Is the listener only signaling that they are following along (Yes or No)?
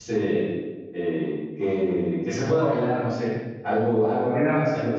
Yes